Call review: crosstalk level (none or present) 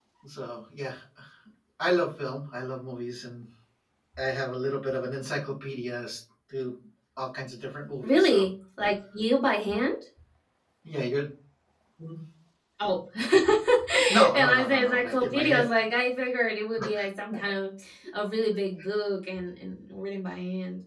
present